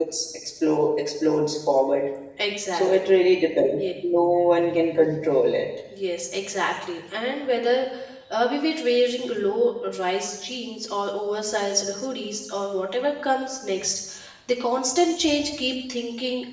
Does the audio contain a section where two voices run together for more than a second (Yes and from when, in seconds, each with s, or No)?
No